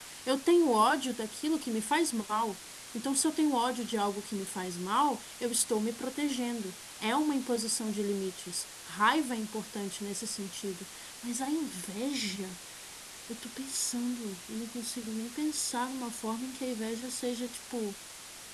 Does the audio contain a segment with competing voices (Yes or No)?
No